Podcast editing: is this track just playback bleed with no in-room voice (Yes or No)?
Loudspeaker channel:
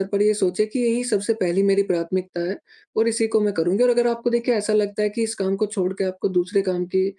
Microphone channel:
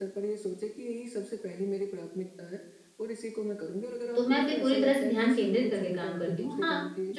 No